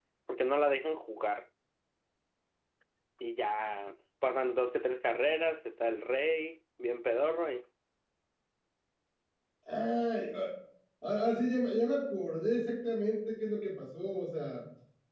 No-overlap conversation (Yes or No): Yes